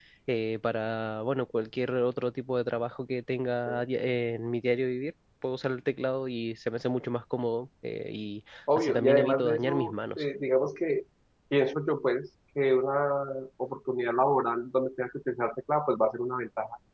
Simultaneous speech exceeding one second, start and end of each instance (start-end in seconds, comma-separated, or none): 8.8-10.2